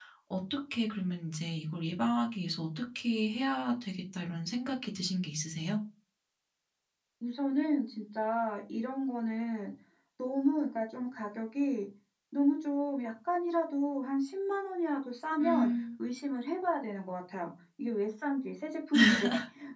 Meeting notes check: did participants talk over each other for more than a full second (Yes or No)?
No